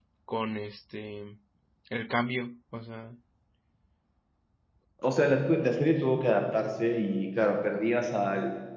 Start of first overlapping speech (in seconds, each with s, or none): none